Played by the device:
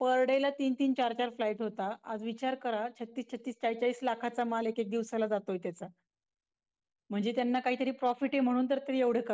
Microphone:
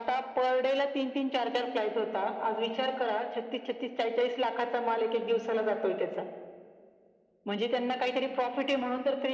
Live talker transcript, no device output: none

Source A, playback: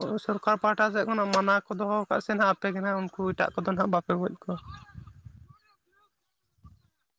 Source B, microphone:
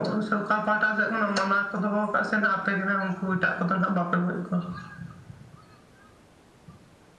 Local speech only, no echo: none

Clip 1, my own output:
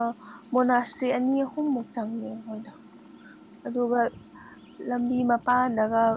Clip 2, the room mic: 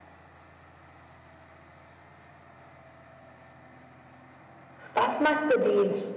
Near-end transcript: ꯄꯥꯁ ꯃꯥꯥꯛꯇꯗꯤꯅ

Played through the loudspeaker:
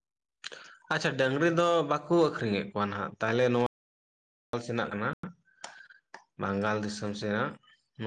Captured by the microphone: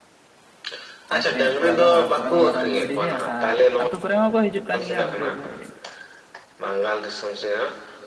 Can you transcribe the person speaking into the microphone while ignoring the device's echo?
ᱟᱠᱷᱨᱤᱧᱮᱫ ᱠᱚᱣᱟ ᱟᱫᱚ ᱦᱟᱴ ᱠᱚᱨᱮ ᱦᱚᱸ ᱢᱮᱨᱚᱢ ᱵᱷᱤᱰᱤ ᱜᱮ ᱟᱨ ᱟᱹᱛᱩ ᱠᱚᱨᱮ ᱦᱚᱸᱠᱚ ᱦᱤᱡᱩᱜ ᱠᱟᱱ ᱜᱮᱭᱟ ᱩᱱᱠᱩ ᱦᱟᱠᱷᱟᱡ

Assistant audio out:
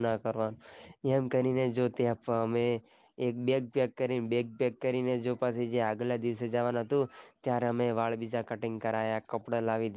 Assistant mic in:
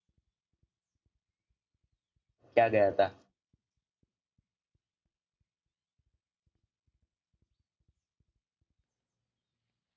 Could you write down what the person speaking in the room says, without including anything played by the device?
ક્યાં ગયા તા

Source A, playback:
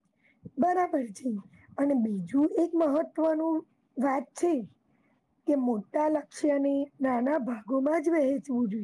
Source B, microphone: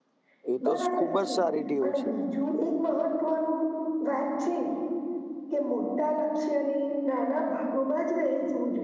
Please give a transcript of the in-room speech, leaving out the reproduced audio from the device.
એ તો ખુબ જ સારી ટેવ છે

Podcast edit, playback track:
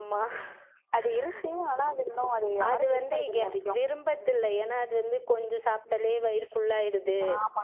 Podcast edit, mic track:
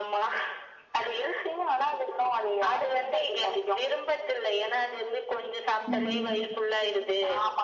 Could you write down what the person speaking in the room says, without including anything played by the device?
ம்

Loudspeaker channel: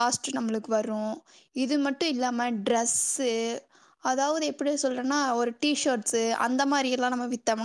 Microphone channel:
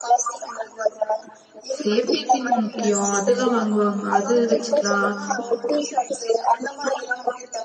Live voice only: சேஃப்டி ஃபின் முக்கியம் இதுல்லாம் வாங்குவாங்க அது வச்சுக்கலாம்

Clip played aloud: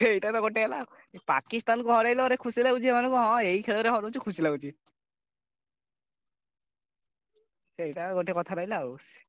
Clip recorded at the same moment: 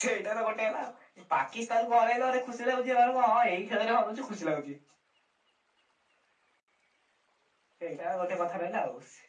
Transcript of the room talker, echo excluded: none

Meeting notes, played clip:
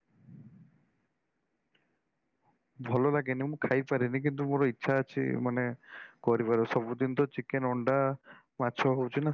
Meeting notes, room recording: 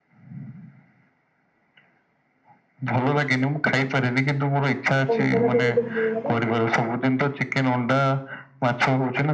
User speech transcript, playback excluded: ଙ୍କଙ୍କଡା ତମକୁ ଭଲ ଲାଗେ।

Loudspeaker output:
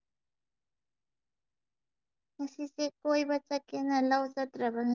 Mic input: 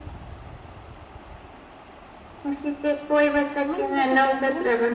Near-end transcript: ꯏꯃꯗꯁꯣ ꯄꯦꯟꯕꯒꯣꯟ

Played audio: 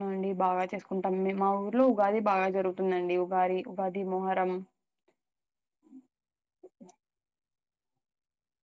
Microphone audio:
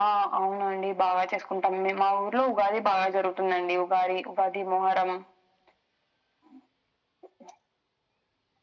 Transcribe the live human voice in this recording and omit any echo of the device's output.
none

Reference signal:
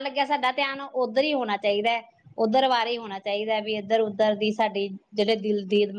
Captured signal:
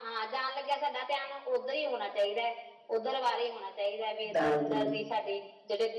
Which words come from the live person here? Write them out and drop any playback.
ਦਾਲ ਦੀ

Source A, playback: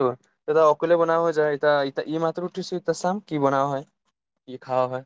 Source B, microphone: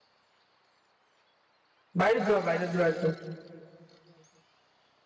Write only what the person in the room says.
বাহিৰত যোৱা, বাহিৰত যোৱা একদম,

